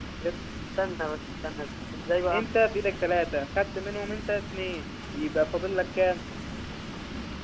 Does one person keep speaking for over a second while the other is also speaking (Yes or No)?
No